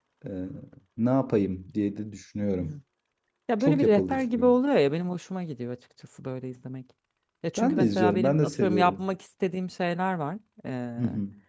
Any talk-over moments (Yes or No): Yes